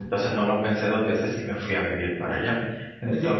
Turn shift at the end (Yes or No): Yes